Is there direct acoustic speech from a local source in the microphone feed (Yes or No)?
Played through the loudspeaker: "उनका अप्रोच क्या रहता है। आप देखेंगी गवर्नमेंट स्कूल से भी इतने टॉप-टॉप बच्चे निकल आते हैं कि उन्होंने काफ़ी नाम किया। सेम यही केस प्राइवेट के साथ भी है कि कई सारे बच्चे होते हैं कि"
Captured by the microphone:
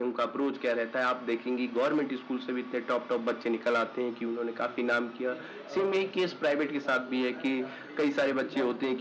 Yes